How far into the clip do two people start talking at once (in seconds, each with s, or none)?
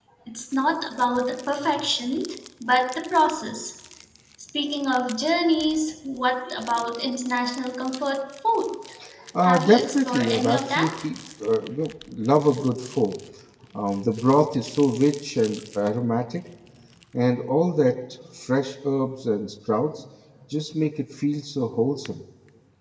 9.4 s